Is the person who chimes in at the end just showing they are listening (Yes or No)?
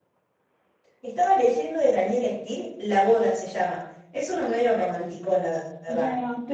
No